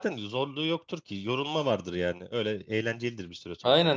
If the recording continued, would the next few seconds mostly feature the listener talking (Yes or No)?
Yes